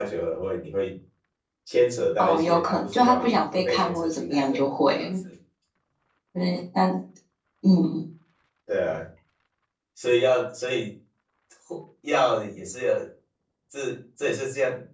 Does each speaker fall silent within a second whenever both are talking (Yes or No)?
No